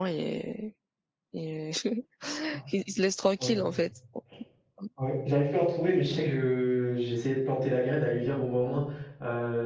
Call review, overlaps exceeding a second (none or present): none